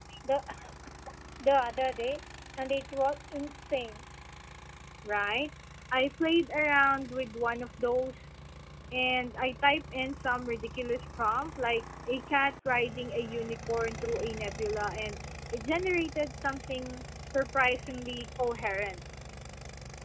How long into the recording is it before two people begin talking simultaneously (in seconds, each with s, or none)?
none